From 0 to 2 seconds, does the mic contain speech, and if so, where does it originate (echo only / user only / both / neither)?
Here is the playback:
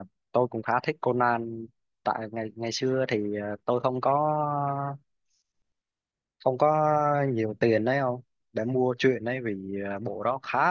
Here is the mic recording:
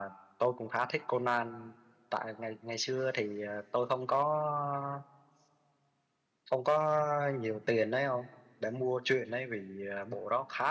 echo only